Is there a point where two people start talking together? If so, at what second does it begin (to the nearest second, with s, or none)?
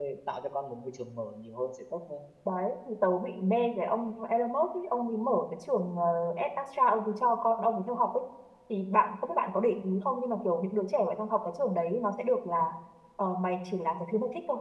none